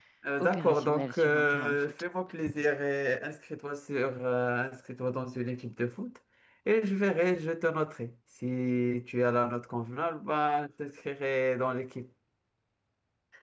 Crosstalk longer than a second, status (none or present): present